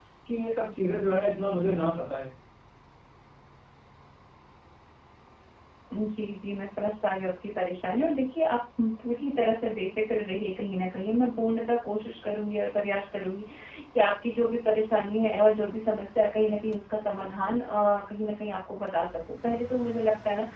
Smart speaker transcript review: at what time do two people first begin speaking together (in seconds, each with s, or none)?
none